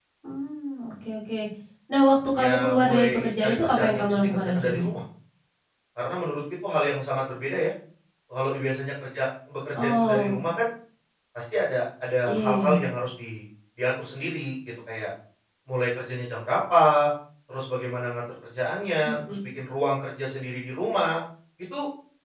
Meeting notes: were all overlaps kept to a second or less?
No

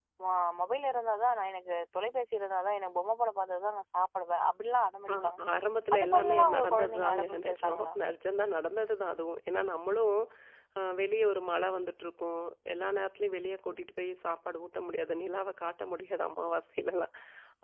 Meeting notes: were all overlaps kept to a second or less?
No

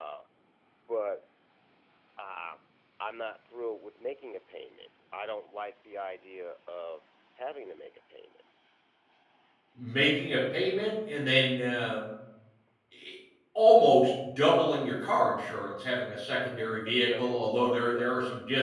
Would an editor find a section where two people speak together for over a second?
Yes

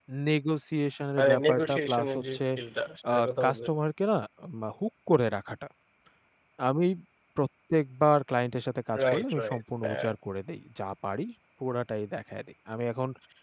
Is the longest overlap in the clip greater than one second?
Yes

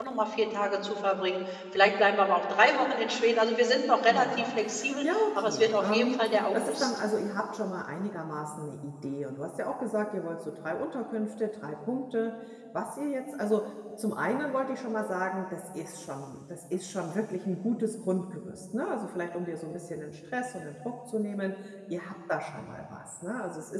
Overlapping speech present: Yes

